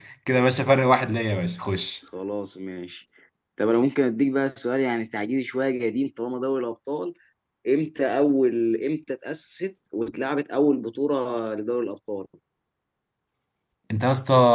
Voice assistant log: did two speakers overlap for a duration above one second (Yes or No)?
No